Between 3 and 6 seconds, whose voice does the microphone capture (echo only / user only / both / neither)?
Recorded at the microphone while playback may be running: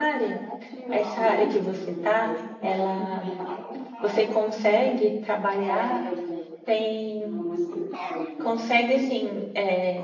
both